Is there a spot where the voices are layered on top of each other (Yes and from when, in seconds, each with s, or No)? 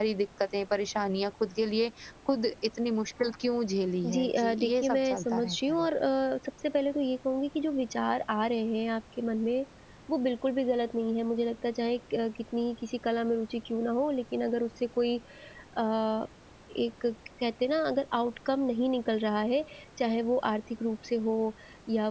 Yes, from 4.0 s